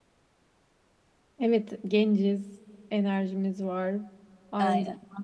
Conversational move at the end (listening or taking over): listening